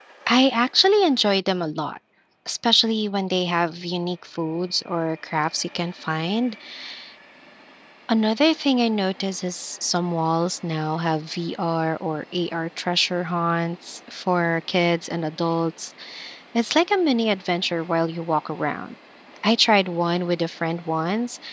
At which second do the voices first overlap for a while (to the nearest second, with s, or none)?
none